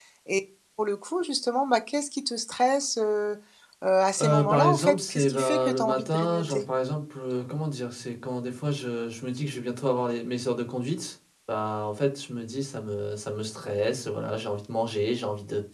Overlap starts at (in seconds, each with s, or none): 4.2 s